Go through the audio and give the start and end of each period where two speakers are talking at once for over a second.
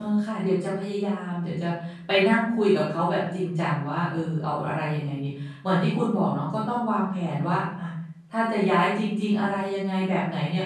none

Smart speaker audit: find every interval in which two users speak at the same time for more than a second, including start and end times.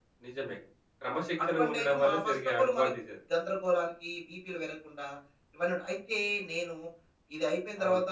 1.5-2.9

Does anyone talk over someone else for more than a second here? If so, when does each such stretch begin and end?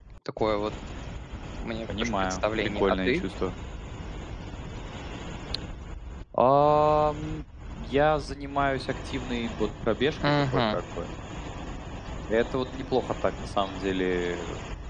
2.0-3.2

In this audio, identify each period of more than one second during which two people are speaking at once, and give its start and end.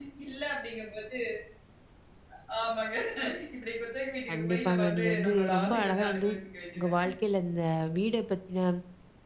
4.3-6.3

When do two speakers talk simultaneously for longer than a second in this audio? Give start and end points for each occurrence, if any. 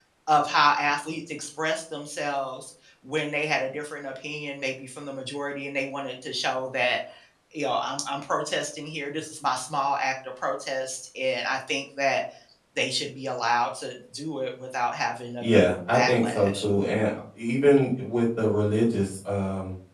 15.4-16.6

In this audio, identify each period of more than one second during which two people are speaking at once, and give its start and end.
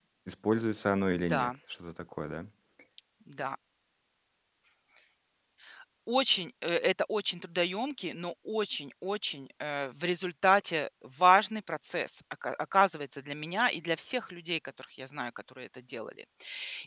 none

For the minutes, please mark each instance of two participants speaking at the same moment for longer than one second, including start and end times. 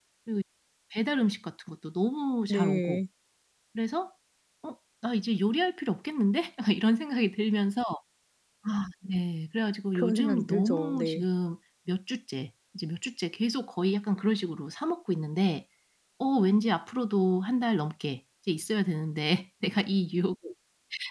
9.9-11.2

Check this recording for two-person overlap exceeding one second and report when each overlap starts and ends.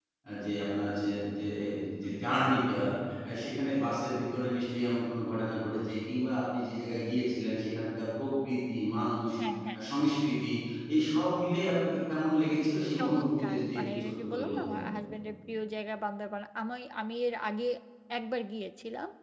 13.0-14.8

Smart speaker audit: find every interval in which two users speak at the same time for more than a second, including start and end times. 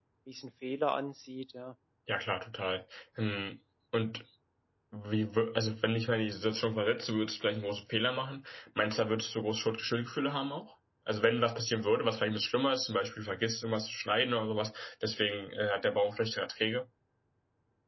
none

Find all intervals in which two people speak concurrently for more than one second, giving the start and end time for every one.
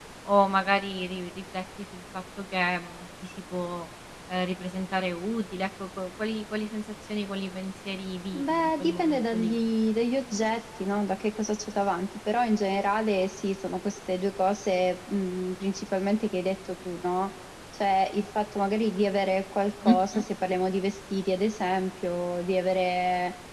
8.4-9.6

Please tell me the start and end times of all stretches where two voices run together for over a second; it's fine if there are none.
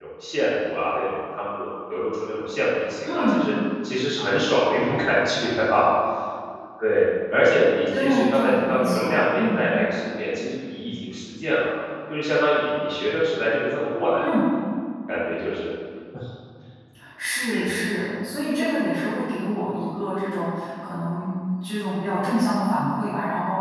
8.0-9.7

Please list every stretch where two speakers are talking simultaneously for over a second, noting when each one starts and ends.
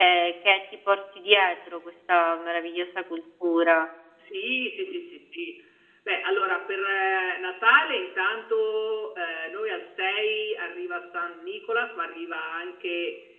none

